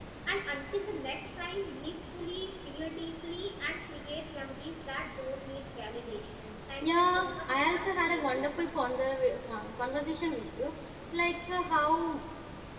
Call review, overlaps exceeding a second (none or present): present